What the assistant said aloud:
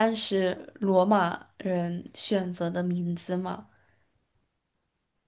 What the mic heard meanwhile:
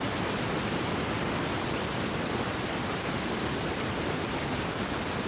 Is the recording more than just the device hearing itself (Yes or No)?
No